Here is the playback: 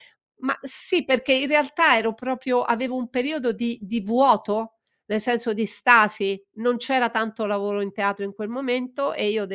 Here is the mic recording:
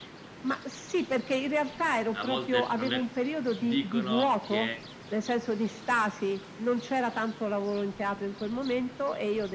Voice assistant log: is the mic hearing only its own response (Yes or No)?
No